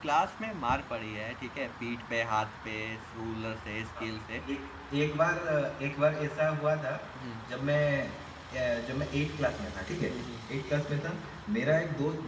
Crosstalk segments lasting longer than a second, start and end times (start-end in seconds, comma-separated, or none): none